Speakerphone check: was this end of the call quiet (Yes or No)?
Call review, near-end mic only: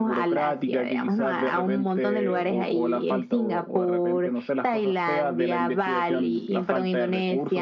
Yes